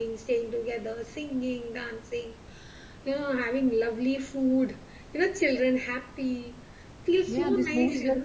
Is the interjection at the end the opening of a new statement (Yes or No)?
Yes